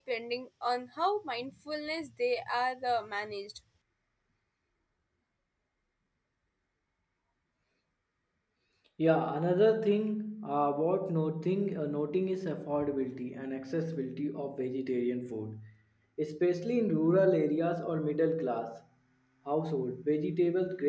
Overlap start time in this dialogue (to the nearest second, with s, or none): none